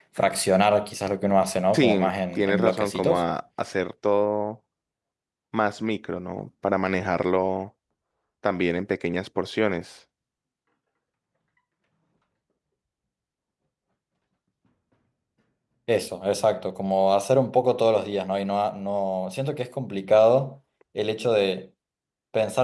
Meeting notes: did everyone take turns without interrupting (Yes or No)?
No